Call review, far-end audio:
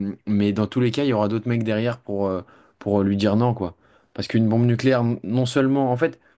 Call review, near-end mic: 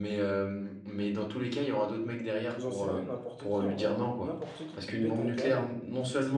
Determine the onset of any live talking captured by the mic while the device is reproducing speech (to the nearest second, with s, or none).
2 s